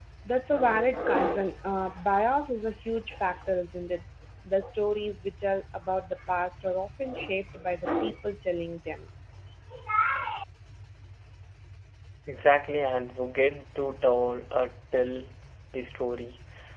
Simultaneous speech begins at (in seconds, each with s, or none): none